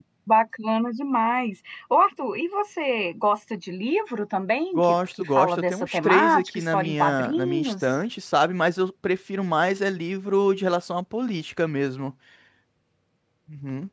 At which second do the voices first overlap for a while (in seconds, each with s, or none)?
4.8 s